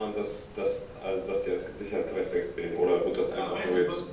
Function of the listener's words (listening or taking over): taking over